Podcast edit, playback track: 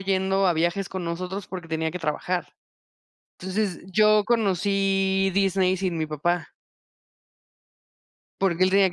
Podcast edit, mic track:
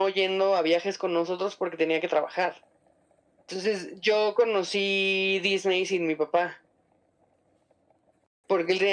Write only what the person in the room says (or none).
none